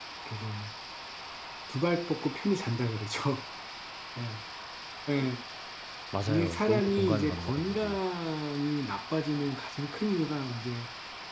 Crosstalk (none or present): present